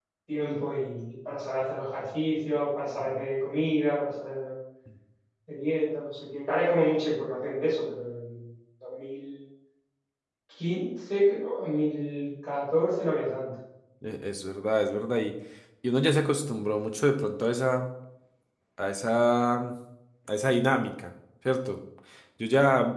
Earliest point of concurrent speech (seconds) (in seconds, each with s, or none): none